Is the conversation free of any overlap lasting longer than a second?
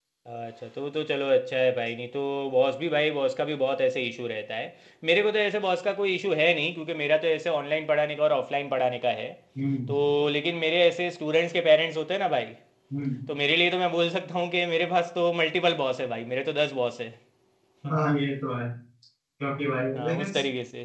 Yes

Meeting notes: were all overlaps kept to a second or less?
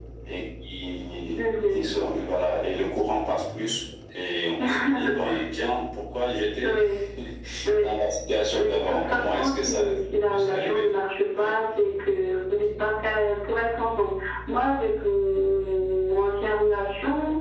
No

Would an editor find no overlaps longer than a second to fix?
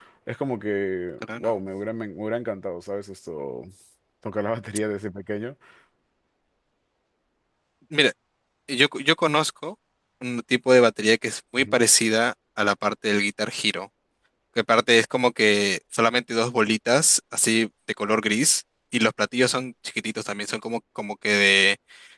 Yes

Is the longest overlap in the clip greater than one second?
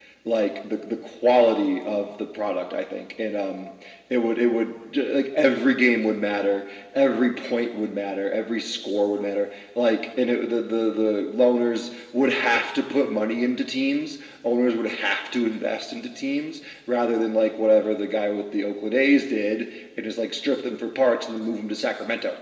No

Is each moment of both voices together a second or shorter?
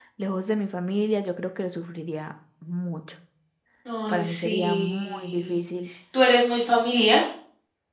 No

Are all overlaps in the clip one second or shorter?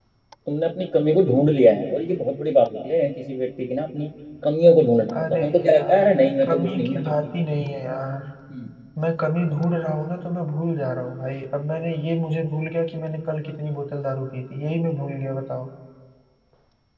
No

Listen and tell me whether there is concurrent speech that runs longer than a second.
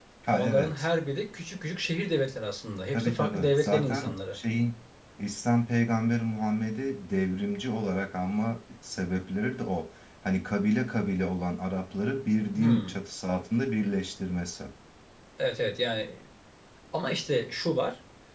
Yes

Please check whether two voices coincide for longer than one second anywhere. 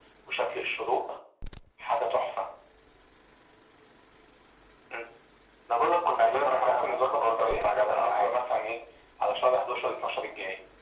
Yes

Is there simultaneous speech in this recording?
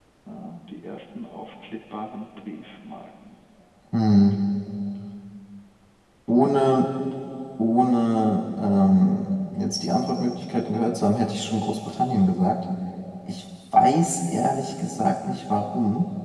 No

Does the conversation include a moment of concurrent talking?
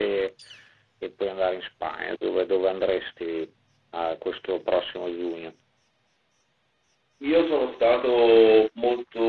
No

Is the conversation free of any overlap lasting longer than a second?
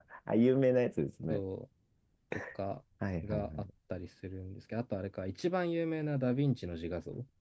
Yes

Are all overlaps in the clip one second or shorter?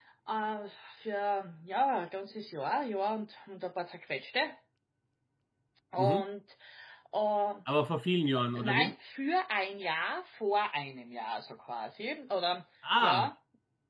Yes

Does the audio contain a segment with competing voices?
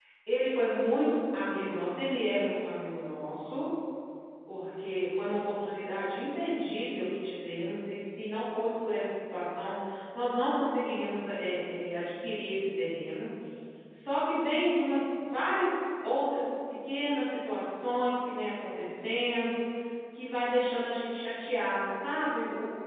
No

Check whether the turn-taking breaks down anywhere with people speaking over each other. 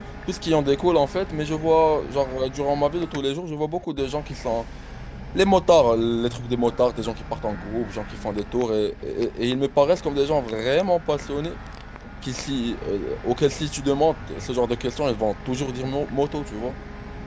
No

